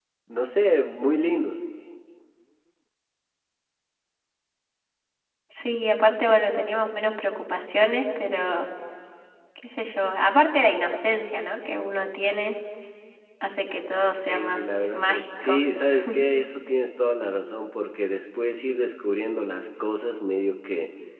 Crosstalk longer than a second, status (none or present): present